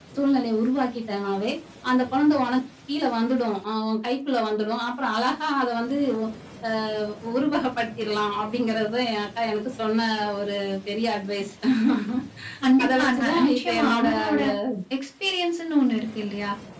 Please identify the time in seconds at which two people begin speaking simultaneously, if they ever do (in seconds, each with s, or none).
12.8 s